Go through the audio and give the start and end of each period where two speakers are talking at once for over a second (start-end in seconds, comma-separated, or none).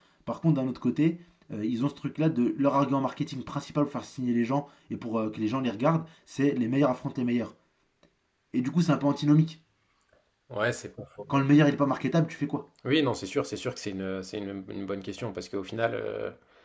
none